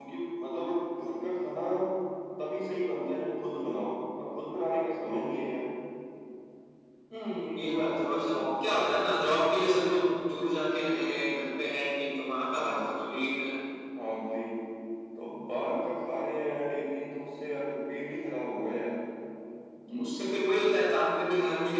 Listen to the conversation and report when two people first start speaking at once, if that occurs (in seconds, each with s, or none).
7.6 s